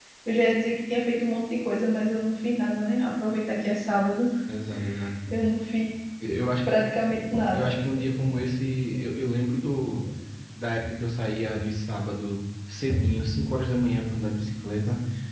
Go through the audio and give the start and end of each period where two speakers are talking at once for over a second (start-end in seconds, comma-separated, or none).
none